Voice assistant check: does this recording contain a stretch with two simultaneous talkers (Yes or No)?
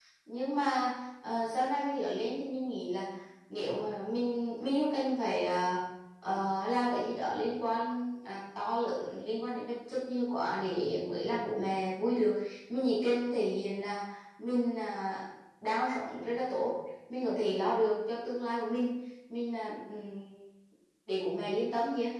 No